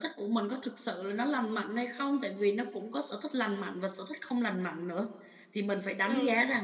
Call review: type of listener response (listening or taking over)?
listening